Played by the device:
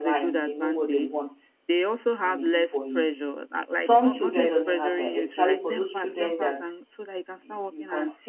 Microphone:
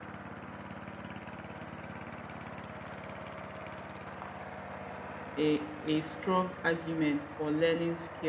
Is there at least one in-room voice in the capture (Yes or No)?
Yes